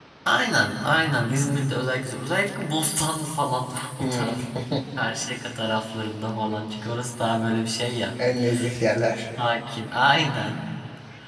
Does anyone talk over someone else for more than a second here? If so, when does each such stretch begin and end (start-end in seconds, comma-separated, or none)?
none